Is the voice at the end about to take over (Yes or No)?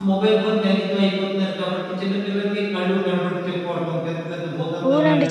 Yes